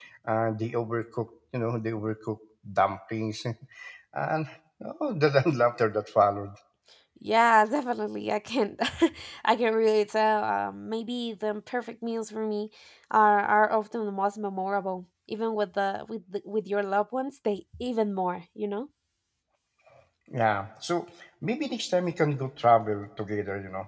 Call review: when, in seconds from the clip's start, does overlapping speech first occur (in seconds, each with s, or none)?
none